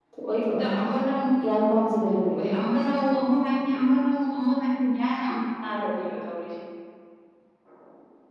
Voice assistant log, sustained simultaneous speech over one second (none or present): none